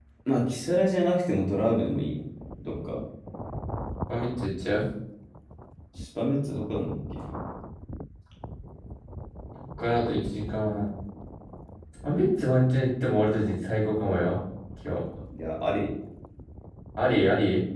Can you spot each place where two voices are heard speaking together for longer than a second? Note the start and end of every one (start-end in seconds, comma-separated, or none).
none